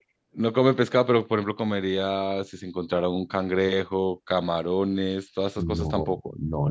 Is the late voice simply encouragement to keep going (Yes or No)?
No